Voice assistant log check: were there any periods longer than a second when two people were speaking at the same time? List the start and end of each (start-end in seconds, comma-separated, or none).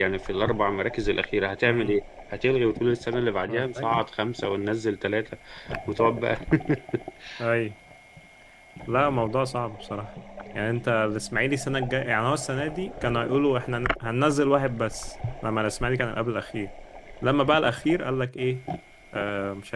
none